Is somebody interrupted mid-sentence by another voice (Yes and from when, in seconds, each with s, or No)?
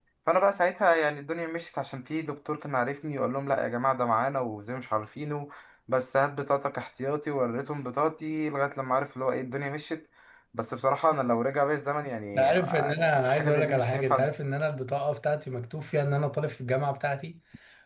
Yes, from 12.3 s